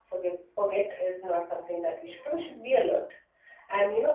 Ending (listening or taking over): listening